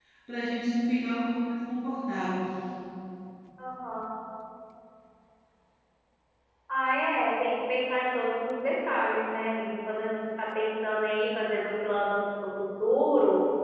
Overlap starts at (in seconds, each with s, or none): none